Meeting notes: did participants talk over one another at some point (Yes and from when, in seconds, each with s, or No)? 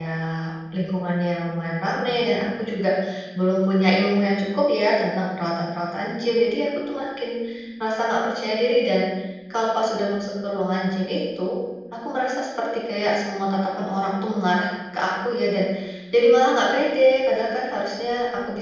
No